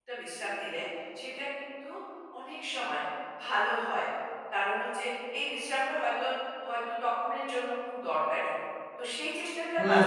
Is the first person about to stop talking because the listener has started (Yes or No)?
Yes